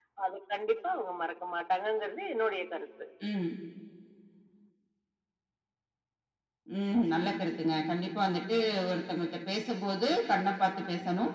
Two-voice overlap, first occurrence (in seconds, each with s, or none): none